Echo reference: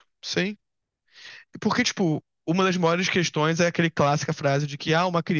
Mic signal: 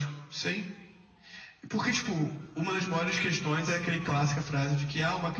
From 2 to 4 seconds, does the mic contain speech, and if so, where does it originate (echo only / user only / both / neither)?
echo only